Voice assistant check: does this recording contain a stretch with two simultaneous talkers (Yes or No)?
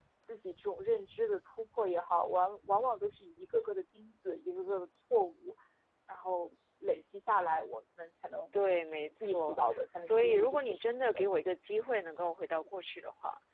Yes